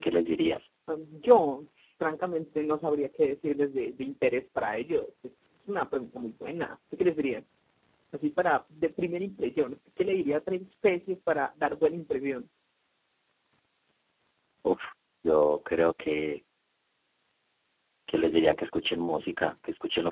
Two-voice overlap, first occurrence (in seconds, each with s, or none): none